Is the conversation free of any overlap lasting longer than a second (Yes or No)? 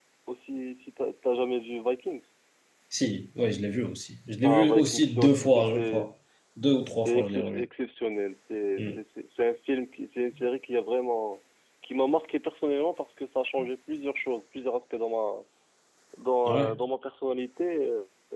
No